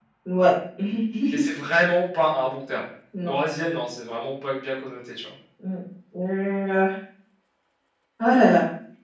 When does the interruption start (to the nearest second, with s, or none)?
none